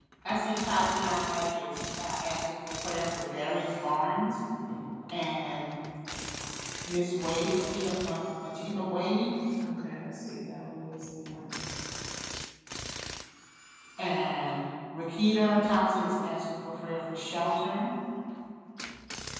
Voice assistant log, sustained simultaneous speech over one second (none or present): none